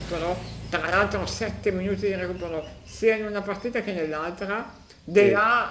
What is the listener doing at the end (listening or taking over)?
listening